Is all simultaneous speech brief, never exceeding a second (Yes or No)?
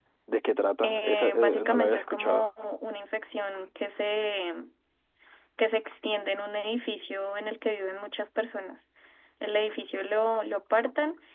No